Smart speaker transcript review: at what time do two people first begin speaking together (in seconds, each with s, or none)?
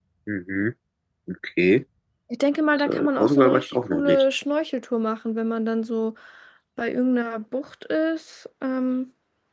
2.7 s